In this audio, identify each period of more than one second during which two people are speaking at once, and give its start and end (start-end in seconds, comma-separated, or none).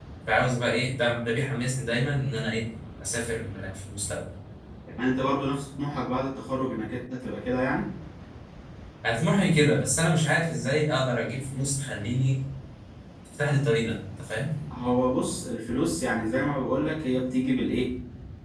none